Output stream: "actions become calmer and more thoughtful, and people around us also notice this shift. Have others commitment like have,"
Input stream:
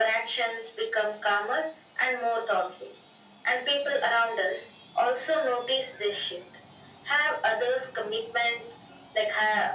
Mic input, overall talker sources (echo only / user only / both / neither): echo only